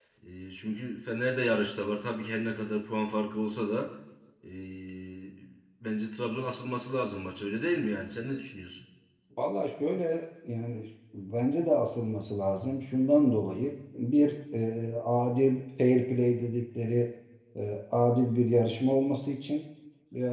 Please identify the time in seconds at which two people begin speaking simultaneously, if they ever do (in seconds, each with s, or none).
none